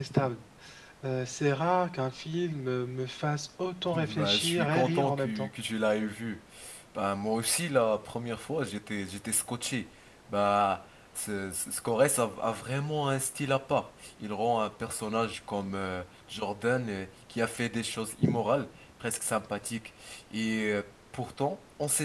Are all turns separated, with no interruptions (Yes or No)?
No